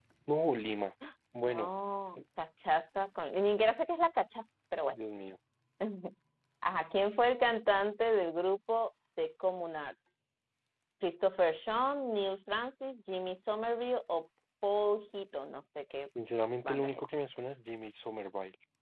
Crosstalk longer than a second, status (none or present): none